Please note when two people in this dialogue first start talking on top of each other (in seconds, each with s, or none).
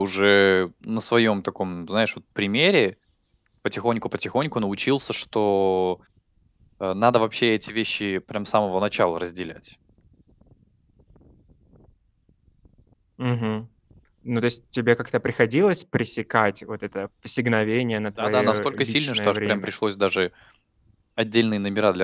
18.2 s